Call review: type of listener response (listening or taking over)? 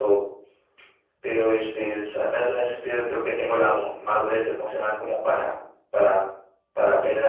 taking over